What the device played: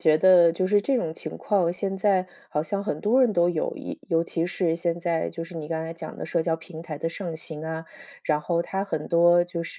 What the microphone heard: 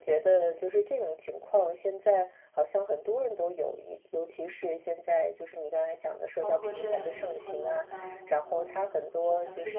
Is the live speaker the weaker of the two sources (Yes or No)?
Yes